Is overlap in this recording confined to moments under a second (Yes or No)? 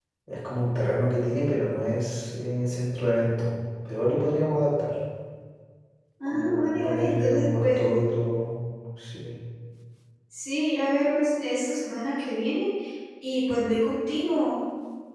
No